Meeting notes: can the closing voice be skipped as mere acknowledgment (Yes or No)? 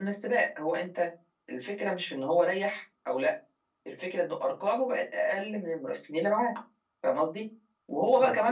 Yes